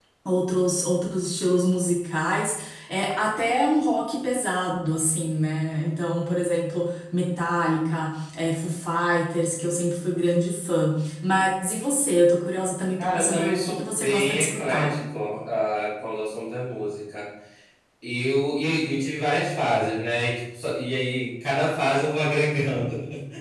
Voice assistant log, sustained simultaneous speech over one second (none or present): present